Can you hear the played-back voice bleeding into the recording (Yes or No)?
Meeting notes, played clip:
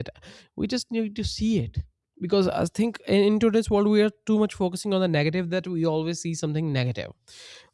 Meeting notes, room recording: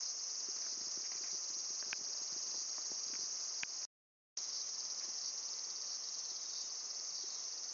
No